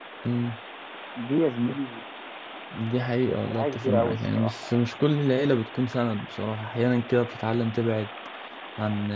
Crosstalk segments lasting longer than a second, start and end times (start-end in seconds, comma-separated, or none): 3.6-4.8